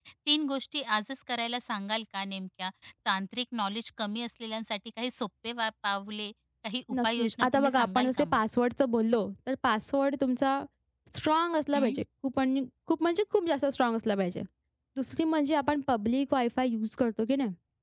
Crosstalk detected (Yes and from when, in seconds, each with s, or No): Yes, from 6.9 s